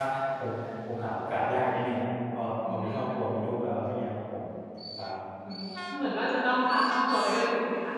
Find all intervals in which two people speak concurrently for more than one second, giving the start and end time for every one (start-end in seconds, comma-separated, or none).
none